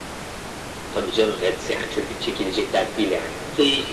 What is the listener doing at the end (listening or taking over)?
taking over